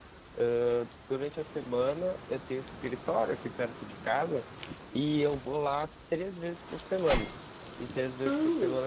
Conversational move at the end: taking over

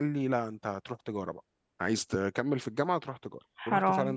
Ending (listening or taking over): listening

